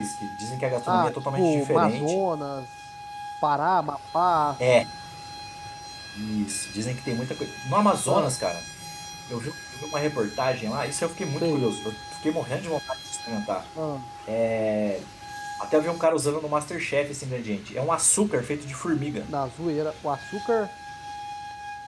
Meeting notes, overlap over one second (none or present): present